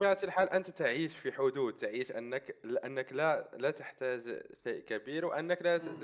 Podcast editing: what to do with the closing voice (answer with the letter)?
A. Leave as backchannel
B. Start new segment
A